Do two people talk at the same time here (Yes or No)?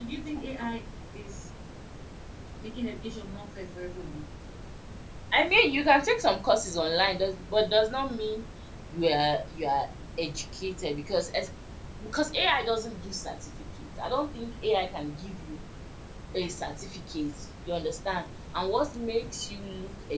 No